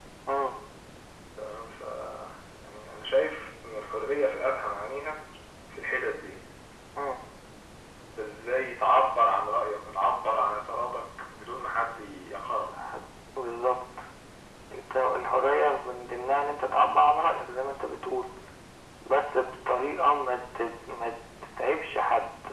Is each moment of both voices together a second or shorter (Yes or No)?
Yes